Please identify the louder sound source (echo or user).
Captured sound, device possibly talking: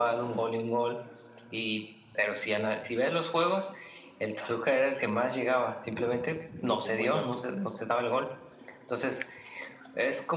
echo